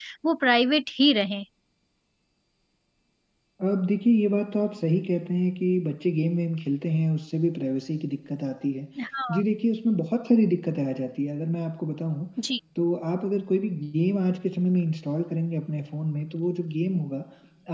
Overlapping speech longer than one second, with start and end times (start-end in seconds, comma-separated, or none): none